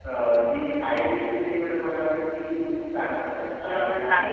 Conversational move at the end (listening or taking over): listening